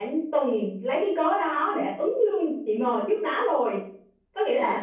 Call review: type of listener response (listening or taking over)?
listening